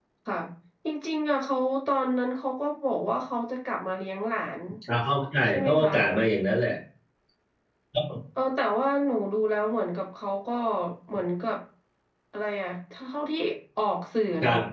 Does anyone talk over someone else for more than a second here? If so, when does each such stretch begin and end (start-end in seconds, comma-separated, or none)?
none